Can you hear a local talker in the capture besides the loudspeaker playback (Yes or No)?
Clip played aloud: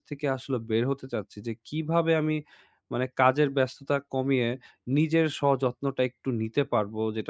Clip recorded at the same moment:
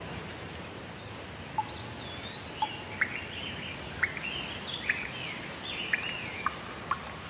No